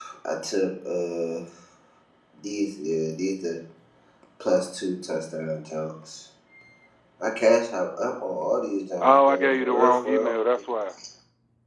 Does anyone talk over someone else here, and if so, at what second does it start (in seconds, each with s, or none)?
9.0 s